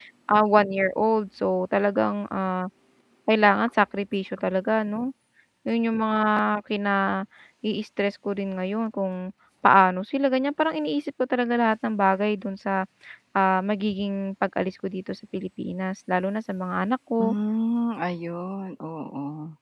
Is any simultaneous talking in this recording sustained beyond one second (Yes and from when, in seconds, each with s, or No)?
No